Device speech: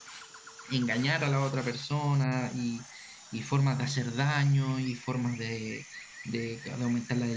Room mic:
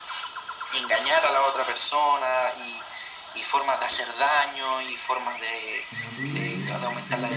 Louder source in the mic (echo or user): echo